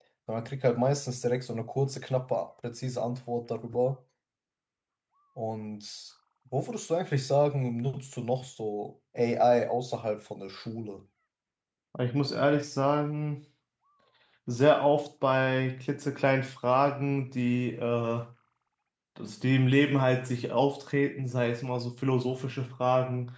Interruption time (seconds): none

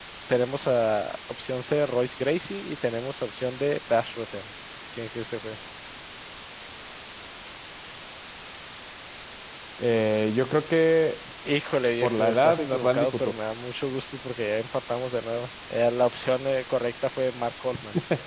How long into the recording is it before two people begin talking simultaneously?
12.0 s

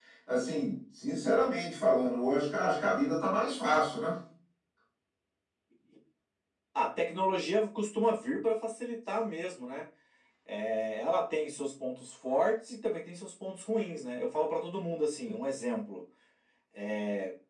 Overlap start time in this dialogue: none

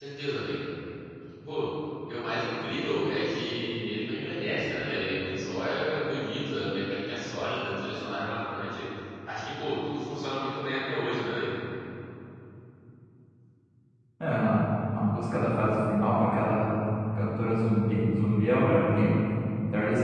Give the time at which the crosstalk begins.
none

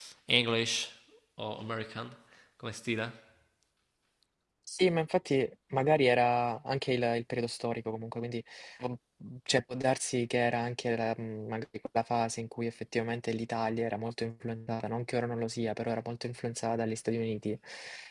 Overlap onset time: none

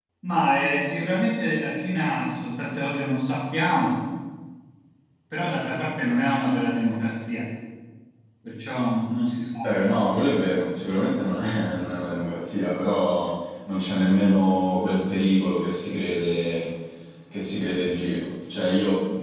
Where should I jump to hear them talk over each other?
none

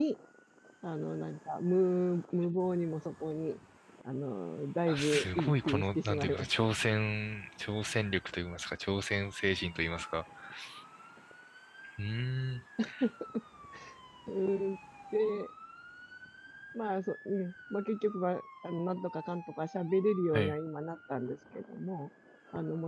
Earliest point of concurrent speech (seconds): 4.9 s

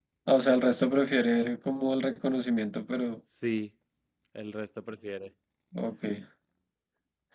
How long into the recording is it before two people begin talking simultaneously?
none

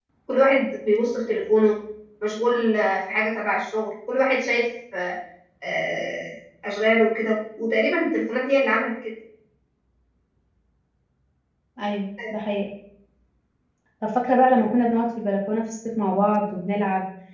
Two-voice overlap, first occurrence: none

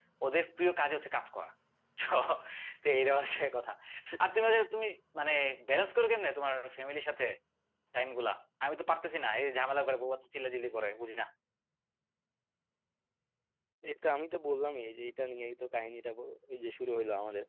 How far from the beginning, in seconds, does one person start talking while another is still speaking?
none

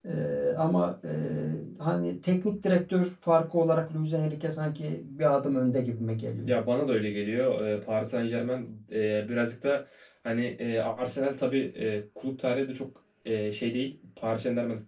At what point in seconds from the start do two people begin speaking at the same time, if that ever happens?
none

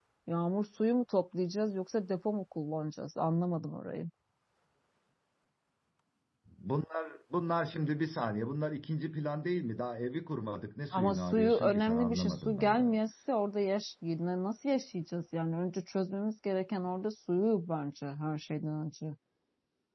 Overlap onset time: 10.9 s

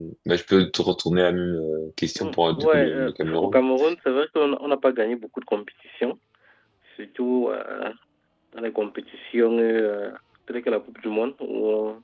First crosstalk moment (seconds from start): 2.2 s

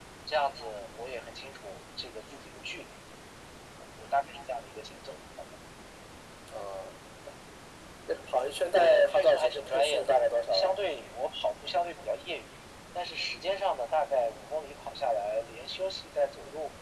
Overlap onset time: 8.8 s

